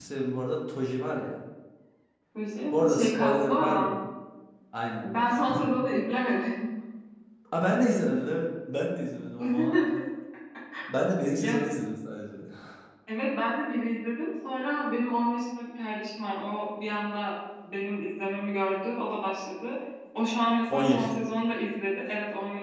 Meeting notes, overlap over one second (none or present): present